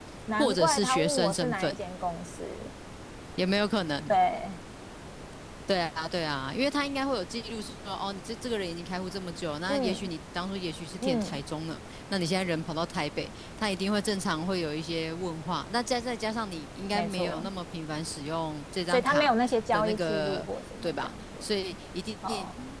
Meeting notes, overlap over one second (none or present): present